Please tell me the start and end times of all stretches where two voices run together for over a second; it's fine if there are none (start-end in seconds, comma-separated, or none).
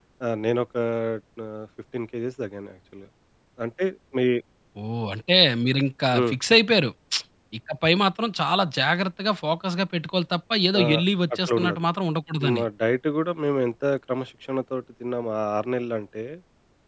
none